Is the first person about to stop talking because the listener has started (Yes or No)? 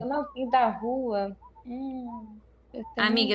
Yes